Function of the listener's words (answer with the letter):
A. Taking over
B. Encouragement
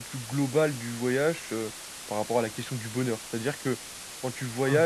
B